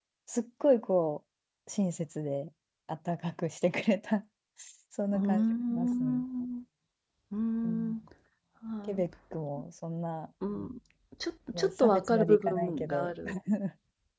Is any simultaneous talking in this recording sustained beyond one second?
Yes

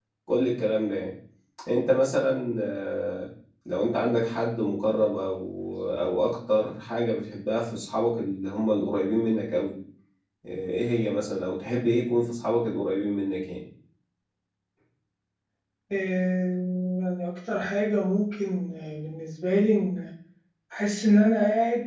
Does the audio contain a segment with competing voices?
No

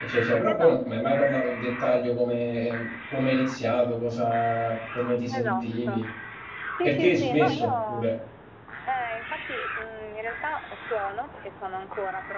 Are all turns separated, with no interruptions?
No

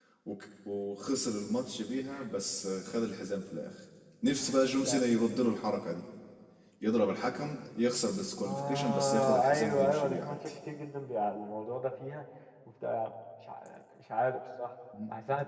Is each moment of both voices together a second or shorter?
No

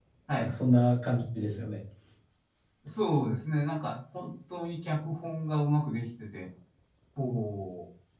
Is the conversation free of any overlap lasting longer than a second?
Yes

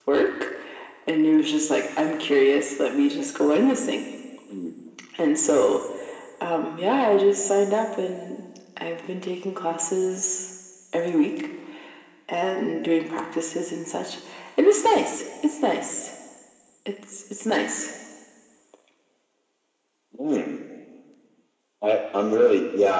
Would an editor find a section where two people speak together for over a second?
No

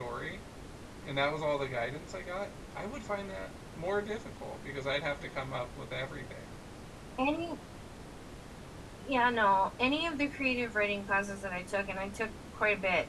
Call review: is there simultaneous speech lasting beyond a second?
No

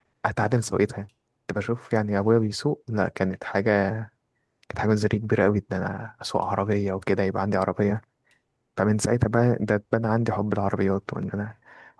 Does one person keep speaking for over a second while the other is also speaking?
No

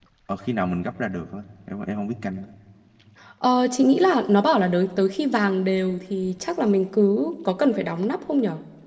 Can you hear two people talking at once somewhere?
No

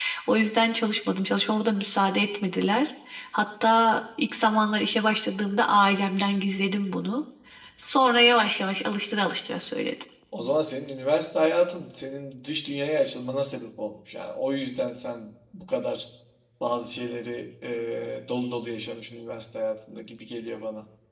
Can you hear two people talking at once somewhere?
No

